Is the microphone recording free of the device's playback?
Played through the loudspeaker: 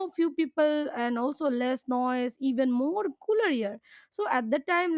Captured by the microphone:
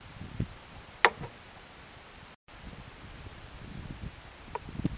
Yes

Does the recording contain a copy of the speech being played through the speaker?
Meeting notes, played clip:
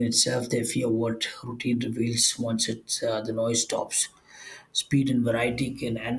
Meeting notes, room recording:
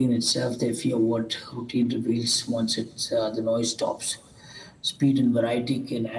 Yes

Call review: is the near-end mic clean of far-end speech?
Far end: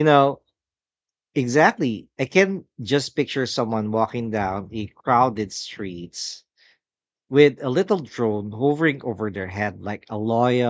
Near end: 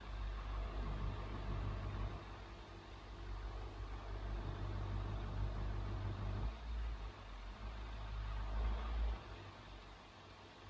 Yes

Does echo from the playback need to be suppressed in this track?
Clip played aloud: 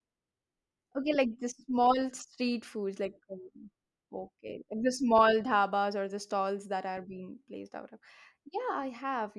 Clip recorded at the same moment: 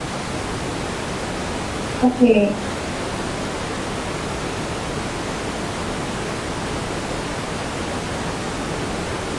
No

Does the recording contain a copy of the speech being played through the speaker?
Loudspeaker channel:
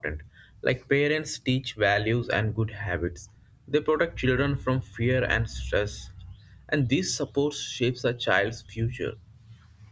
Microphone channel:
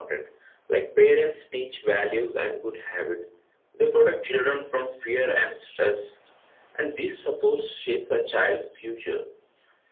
Yes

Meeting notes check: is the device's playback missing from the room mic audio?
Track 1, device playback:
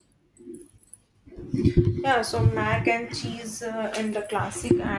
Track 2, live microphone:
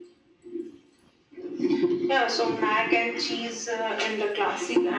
No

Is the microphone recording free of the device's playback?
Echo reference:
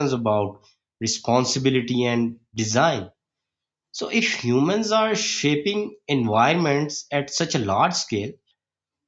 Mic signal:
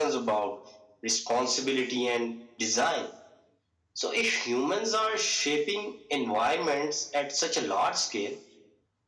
No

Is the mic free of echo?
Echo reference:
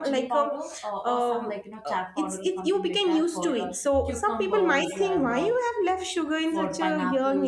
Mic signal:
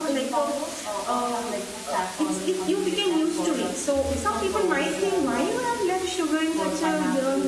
No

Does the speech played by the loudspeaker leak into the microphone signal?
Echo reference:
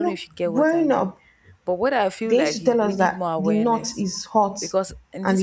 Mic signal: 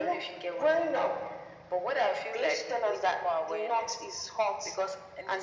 Yes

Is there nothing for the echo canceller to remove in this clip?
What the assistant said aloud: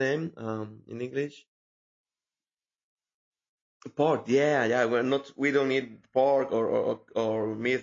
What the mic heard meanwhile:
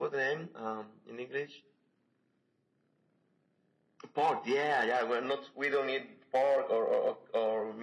No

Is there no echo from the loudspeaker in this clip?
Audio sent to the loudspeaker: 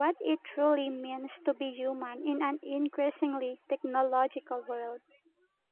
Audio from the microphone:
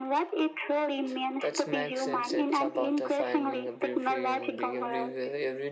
No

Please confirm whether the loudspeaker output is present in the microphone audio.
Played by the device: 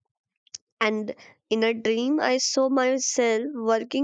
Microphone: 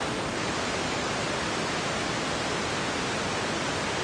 No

